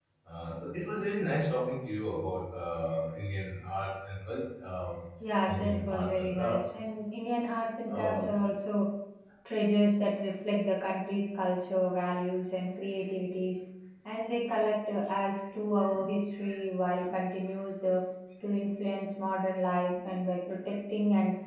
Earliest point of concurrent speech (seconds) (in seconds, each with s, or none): 5.5 s